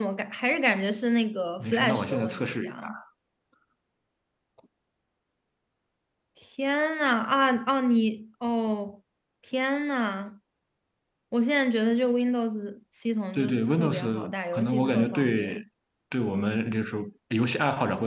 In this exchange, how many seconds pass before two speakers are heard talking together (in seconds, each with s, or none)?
1.6 s